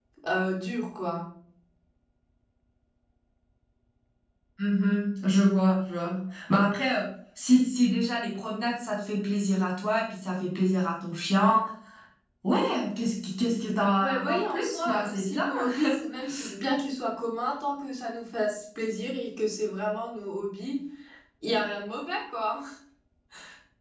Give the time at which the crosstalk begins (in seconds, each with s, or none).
14.0 s